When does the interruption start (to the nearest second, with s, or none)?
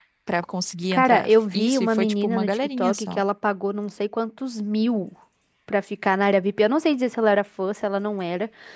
1 s